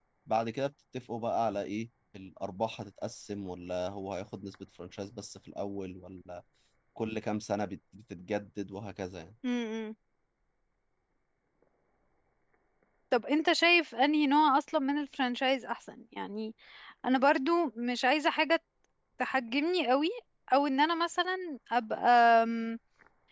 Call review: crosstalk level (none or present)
none